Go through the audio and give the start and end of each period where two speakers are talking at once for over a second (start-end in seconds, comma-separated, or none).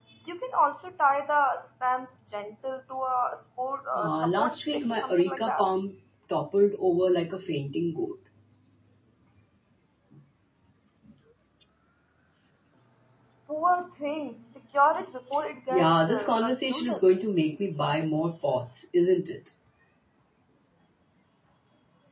4.0-5.7, 15.7-17.0